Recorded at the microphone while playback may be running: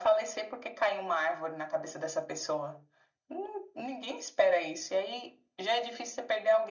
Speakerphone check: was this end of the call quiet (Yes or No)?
Yes